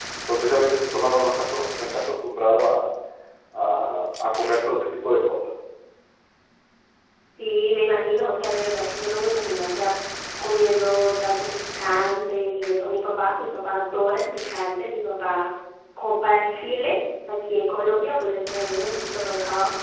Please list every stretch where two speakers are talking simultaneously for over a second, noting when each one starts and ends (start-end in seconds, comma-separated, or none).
none